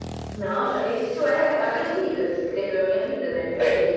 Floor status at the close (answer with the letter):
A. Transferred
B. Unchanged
B